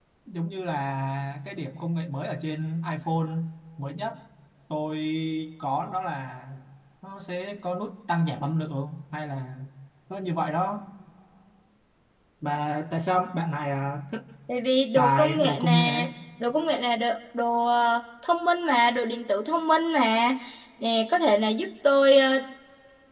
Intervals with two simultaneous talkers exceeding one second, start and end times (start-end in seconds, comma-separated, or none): 14.9-16.1